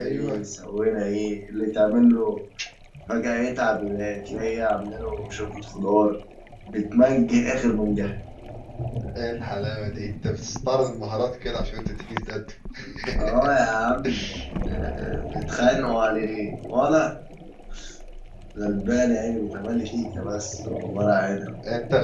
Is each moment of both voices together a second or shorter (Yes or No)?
Yes